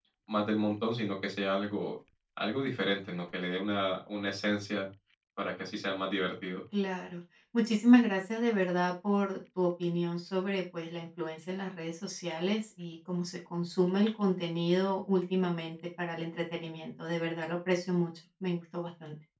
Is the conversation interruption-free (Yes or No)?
Yes